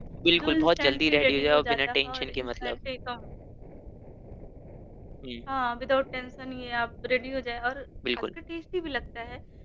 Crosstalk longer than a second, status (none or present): present